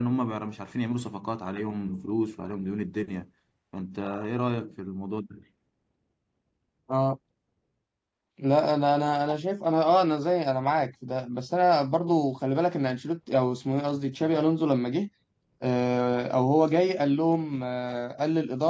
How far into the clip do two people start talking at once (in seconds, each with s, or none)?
none